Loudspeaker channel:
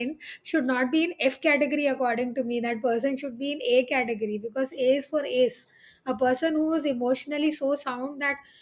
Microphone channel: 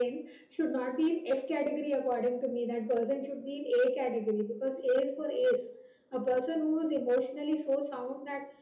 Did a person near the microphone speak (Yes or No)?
No